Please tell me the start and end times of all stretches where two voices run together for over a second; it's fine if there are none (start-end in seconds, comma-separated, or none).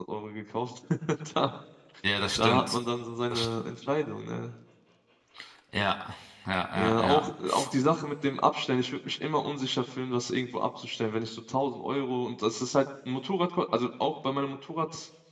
none